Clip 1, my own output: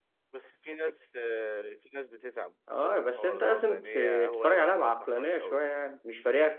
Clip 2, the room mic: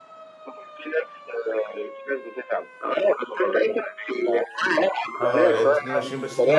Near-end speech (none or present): present